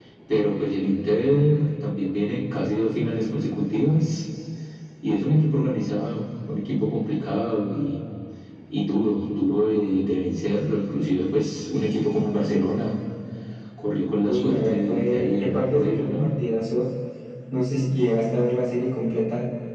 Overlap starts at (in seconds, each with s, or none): 14.3 s